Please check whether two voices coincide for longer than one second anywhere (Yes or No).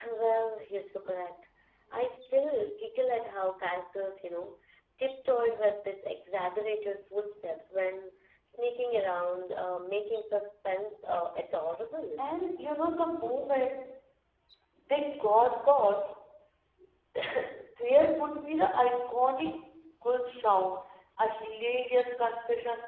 No